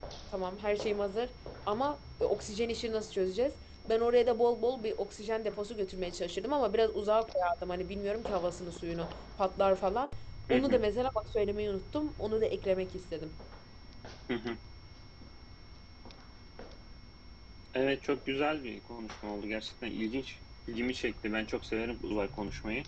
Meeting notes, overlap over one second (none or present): none